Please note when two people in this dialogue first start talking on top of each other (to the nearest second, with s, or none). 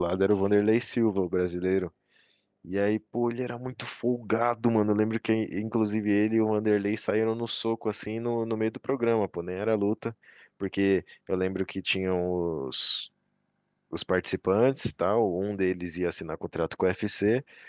none